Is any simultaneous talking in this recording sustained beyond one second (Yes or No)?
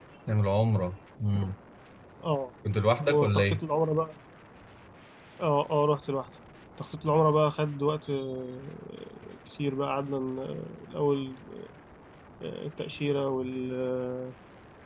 No